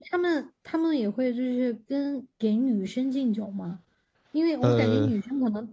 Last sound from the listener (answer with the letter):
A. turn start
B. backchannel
B